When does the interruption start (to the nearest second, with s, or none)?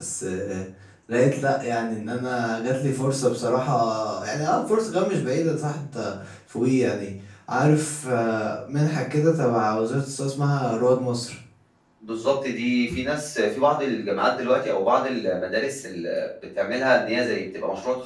none